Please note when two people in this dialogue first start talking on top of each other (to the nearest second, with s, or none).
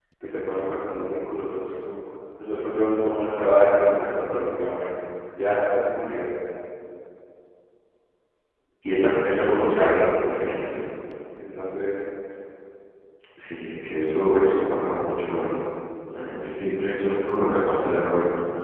10 s